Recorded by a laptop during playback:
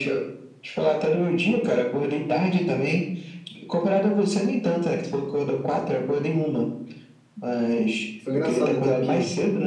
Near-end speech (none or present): present